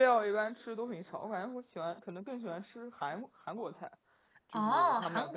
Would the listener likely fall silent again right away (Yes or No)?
No